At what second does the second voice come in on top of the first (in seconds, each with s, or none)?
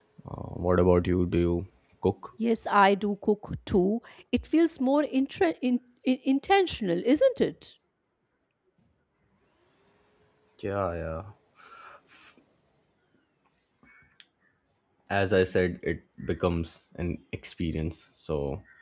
none